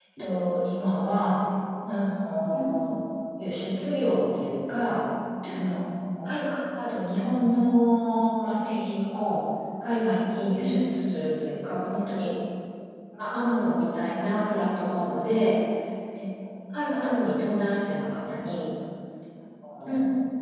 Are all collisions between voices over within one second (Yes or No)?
Yes